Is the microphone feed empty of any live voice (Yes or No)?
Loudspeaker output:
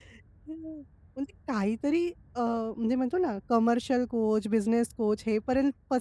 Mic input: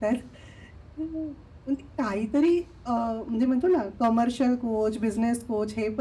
Yes